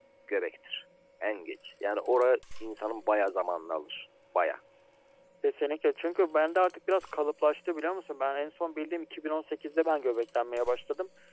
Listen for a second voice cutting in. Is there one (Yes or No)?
No